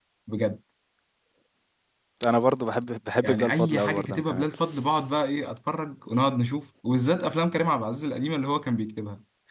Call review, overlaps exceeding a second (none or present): present